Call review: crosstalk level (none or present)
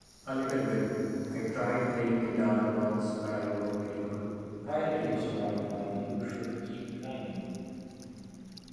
present